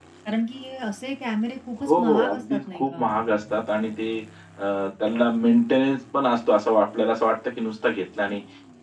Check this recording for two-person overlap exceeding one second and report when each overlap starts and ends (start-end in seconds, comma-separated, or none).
1.9-3.1